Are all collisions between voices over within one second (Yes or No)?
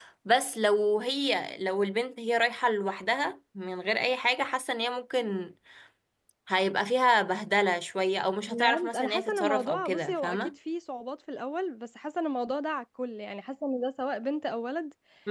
No